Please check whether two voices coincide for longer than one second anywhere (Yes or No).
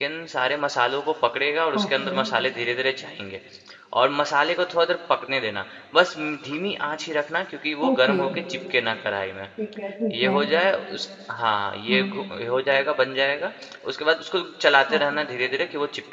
No